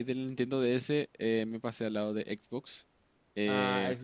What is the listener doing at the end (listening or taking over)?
listening